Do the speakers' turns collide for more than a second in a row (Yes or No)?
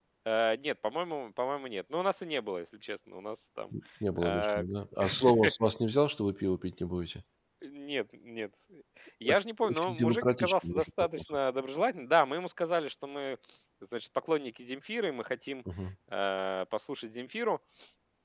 Yes